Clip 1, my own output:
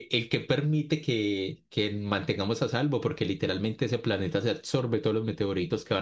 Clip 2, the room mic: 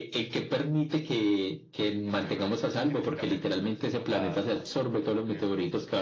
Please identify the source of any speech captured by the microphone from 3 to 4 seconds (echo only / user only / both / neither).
both